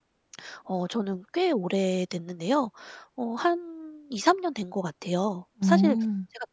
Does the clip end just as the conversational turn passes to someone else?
No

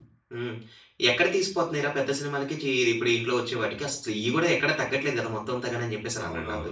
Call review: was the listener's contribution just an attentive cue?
No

